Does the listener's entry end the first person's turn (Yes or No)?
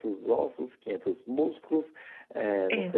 No